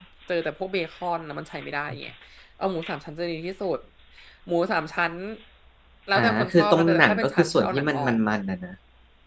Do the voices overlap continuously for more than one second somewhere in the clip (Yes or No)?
Yes